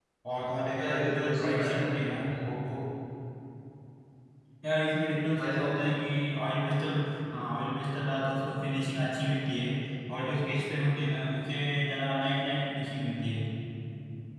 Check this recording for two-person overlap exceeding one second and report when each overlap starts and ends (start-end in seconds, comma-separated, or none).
0.8-2.4